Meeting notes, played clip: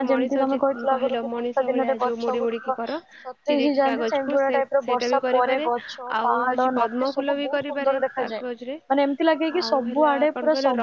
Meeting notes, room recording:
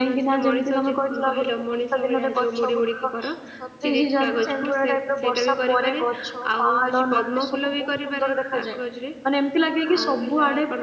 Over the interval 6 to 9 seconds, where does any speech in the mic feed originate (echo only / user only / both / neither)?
echo only